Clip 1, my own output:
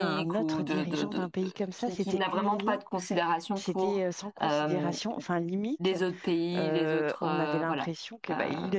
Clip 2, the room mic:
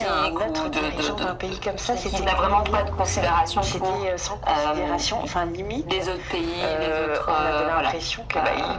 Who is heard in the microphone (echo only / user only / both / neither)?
echo only